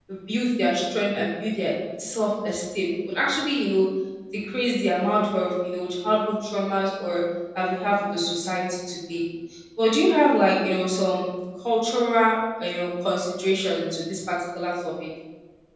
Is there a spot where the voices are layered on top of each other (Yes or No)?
No